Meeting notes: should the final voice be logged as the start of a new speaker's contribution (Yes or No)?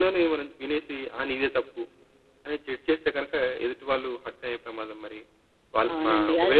Yes